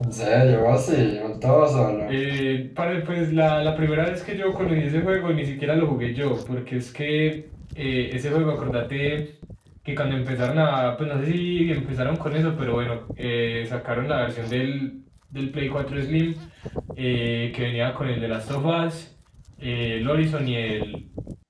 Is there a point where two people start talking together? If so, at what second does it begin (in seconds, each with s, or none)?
none